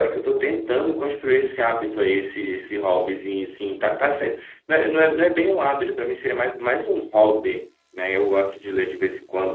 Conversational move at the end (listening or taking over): listening